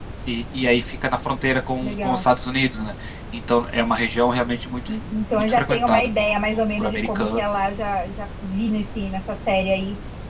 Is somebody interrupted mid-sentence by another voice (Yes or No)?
Yes